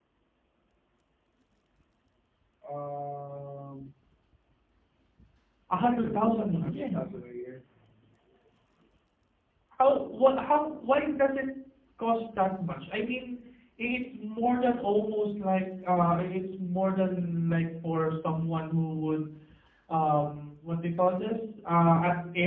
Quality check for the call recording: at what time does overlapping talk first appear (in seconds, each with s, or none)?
5.7 s